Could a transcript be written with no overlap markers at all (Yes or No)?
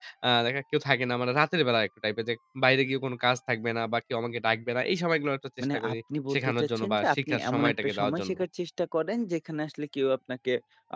No